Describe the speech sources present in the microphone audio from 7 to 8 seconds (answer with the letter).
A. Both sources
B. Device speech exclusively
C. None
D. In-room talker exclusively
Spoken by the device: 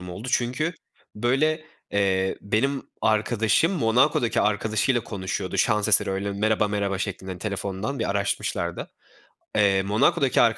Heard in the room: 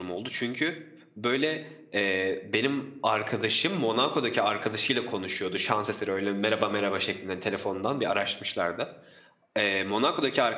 B